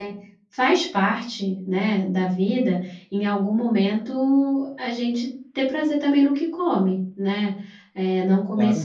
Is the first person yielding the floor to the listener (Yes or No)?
No